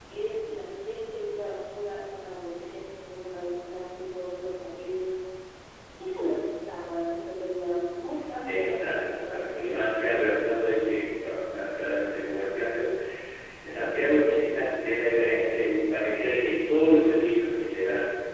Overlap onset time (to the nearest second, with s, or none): 8 s